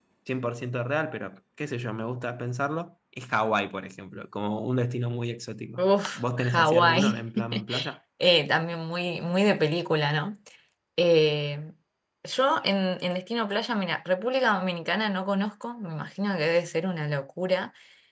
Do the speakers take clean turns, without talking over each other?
No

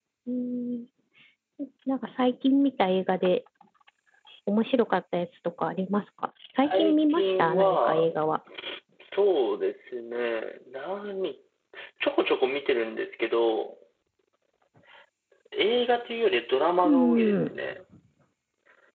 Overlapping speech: Yes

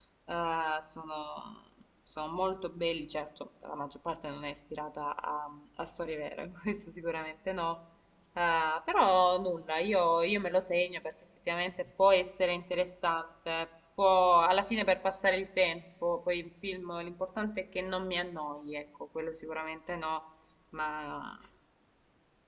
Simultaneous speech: No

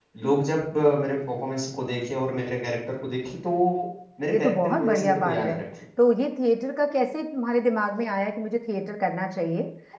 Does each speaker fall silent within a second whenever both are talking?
No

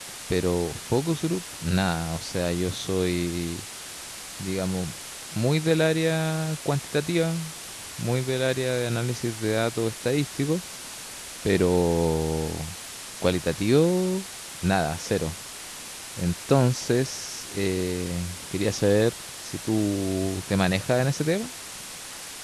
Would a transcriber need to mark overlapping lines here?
No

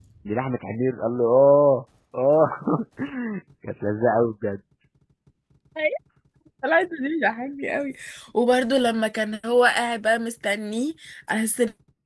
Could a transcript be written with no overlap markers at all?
Yes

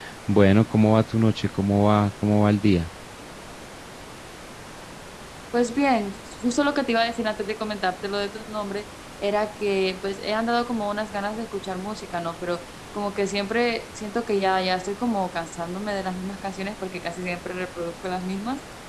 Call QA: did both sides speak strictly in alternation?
Yes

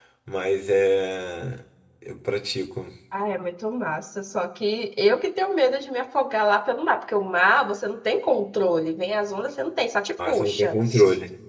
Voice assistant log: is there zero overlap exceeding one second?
Yes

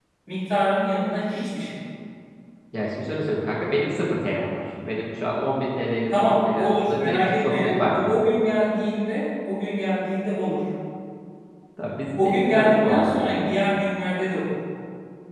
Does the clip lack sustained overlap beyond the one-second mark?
No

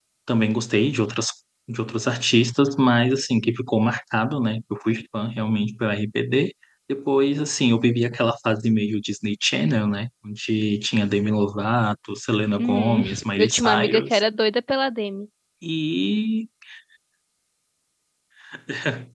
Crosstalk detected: Yes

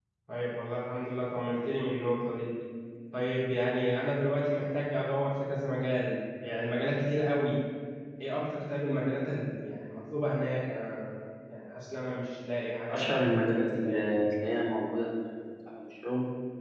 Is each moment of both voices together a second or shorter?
No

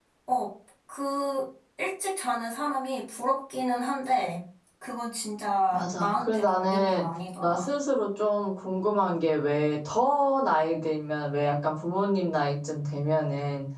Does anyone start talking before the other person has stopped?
Yes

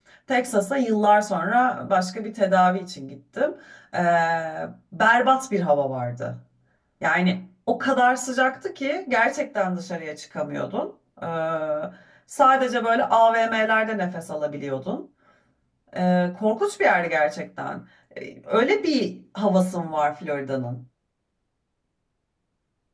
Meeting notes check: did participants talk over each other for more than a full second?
No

